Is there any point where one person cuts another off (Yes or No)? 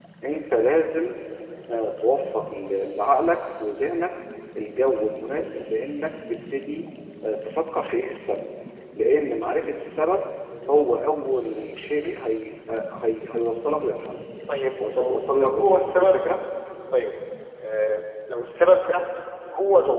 Yes